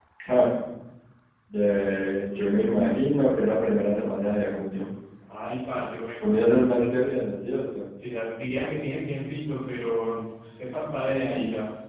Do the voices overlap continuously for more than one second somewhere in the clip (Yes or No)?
No